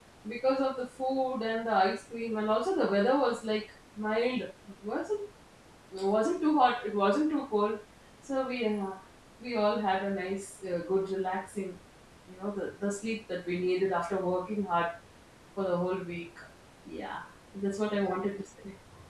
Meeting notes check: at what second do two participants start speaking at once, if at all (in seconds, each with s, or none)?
none